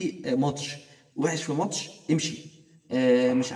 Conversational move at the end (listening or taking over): listening